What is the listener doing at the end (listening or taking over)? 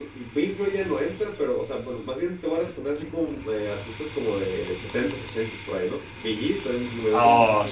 taking over